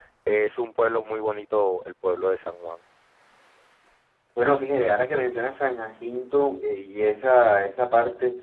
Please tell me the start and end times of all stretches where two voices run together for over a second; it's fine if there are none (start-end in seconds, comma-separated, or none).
none